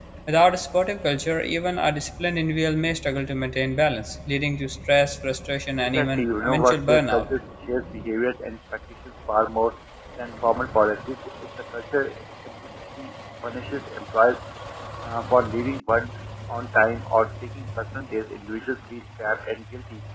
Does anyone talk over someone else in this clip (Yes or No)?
Yes